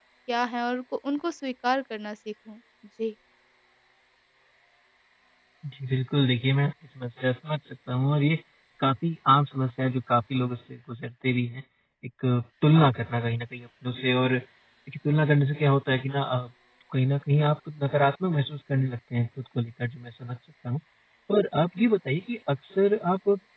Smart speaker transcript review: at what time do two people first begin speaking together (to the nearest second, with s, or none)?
none